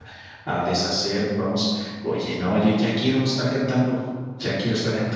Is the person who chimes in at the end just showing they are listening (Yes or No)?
No